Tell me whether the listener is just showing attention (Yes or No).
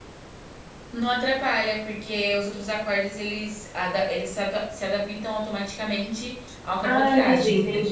No